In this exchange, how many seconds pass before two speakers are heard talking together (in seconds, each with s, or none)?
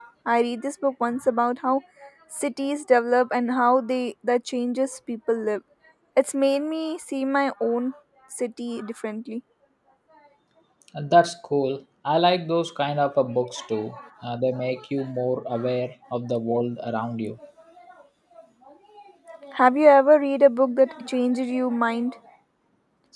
none